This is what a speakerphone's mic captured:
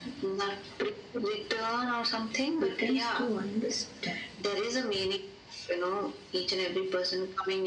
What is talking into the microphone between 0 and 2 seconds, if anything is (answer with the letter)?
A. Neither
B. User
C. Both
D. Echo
D